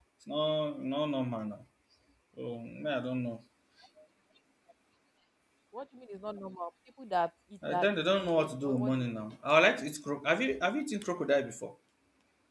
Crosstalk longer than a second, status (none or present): present